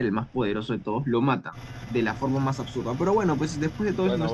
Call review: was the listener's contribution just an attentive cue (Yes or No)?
No